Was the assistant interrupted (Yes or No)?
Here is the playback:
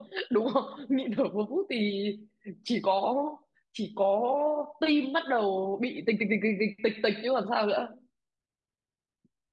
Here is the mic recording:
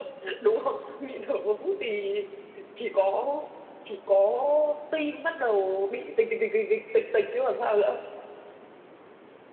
No